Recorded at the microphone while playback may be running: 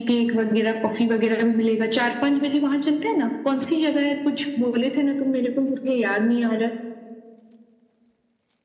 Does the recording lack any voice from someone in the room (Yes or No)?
Yes